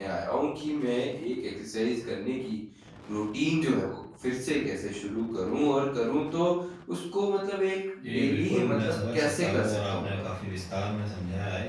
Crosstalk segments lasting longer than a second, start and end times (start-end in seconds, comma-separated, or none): 8.0-10.2